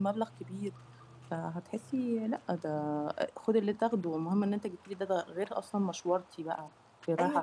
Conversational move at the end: taking over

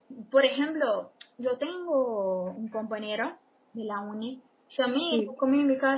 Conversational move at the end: listening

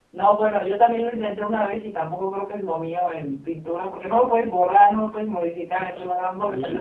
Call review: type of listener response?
listening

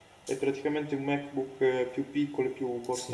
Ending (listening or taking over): taking over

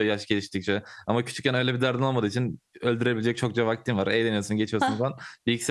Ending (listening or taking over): listening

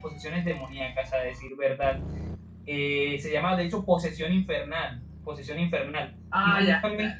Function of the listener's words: taking over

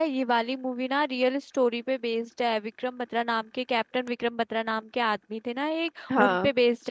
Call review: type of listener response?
listening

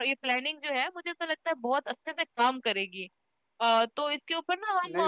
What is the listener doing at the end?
listening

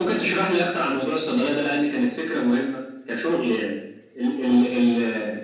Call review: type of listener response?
listening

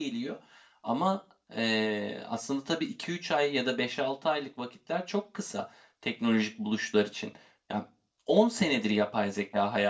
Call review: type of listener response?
listening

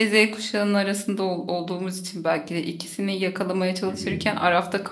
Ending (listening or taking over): listening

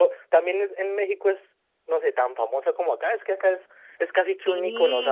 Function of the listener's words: listening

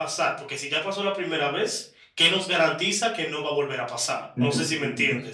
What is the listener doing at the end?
taking over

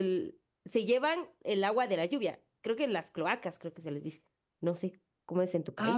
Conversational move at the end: taking over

